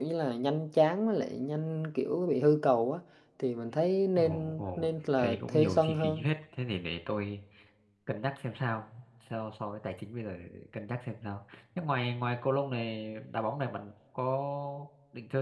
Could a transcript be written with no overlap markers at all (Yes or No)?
No